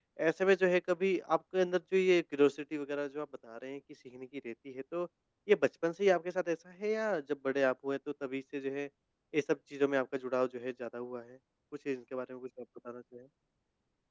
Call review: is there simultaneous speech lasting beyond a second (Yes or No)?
No